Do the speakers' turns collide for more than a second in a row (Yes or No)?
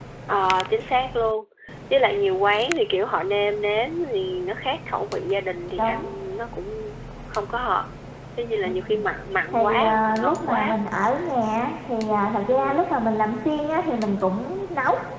Yes